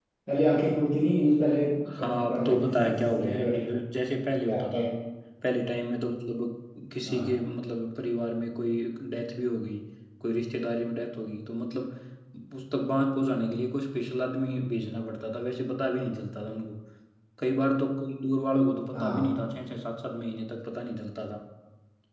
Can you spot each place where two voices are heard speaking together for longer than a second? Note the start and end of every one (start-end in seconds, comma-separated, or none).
2.0-3.7